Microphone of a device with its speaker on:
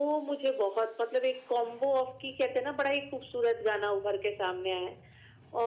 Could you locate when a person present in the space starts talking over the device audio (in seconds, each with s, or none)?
none